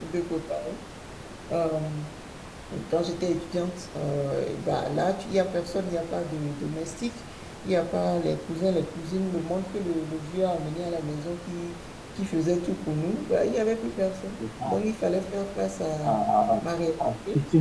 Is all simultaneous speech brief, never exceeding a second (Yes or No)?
Yes